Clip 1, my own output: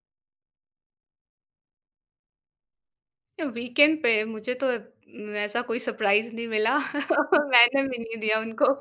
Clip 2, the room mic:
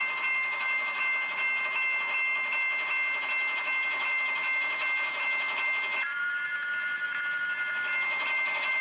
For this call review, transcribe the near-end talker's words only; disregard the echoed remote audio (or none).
none